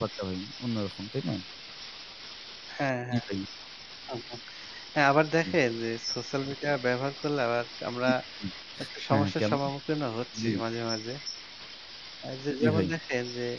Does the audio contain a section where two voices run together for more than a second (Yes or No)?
No